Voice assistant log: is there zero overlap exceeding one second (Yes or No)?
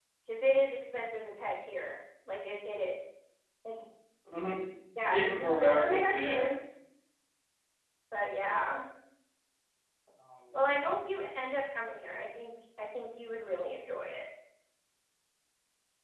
No